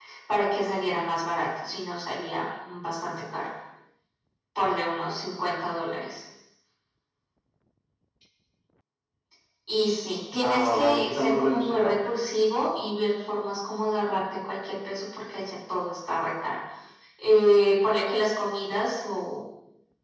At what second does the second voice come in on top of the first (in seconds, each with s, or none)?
10.4 s